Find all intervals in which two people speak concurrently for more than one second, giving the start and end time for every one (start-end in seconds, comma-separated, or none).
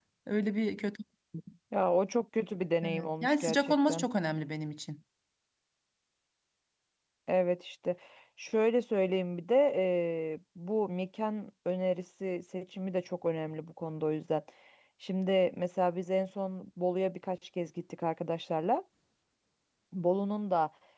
2.8-4.0